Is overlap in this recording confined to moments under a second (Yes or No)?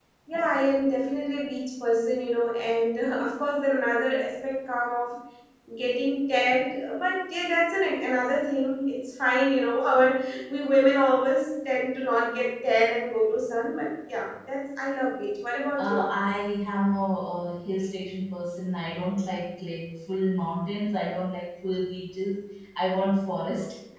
Yes